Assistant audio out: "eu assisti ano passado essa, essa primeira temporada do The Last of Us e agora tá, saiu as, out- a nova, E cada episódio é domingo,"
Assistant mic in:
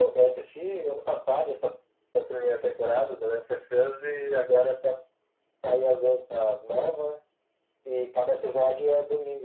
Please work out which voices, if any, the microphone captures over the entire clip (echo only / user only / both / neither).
echo only